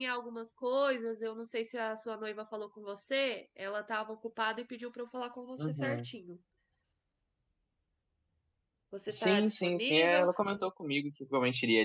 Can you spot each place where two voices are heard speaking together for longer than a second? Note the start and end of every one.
9.1-10.3

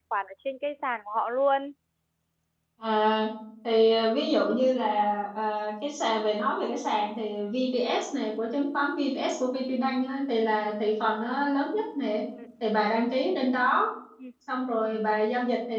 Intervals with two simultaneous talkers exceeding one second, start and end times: none

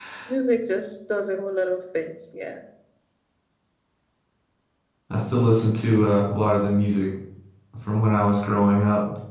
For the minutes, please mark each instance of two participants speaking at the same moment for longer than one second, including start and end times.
none

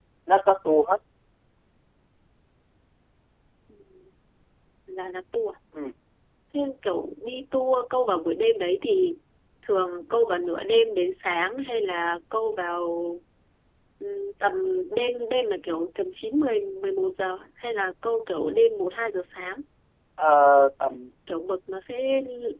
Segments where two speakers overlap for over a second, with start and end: none

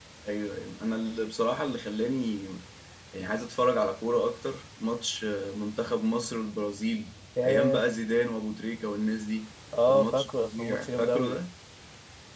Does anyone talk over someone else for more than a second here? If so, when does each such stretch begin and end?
9.9-11.3

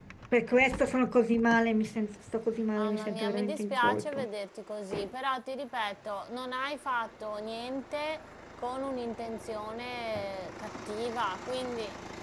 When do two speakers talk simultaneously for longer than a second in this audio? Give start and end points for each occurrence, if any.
2.8-4.3

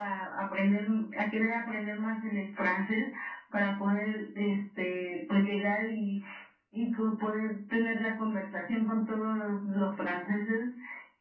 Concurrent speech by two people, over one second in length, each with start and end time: none

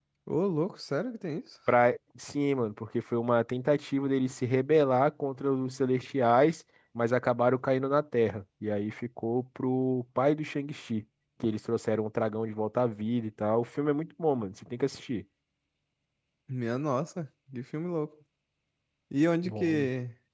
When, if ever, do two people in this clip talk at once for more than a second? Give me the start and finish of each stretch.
none

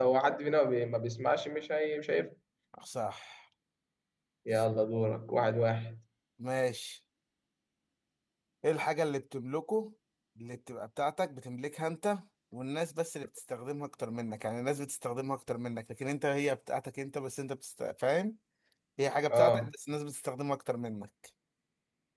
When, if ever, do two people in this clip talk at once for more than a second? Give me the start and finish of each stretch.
none

